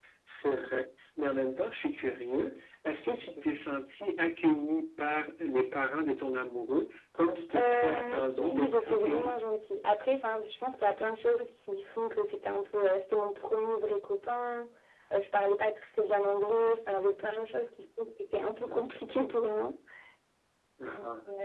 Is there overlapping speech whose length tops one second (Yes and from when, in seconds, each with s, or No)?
Yes, from 7.6 s